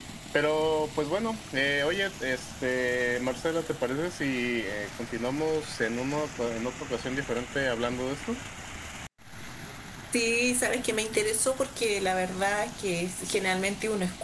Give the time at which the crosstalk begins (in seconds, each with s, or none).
none